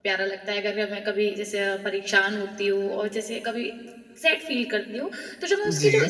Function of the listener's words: listening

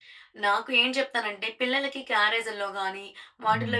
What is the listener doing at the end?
listening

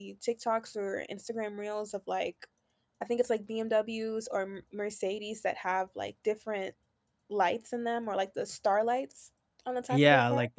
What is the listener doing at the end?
taking over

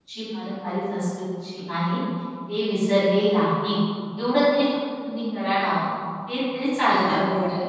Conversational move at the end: taking over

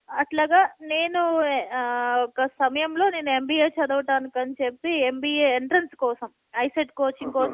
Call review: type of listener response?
listening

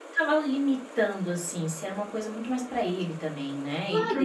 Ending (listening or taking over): taking over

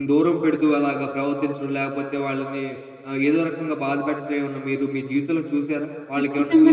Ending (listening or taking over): taking over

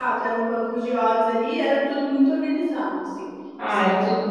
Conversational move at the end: taking over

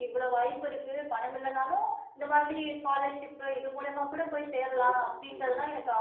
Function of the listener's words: listening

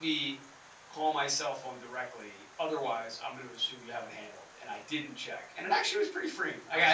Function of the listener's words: listening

